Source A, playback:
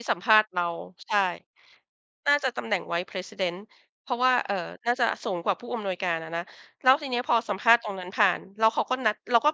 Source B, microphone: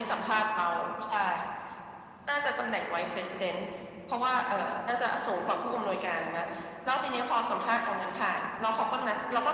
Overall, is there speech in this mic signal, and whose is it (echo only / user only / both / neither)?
echo only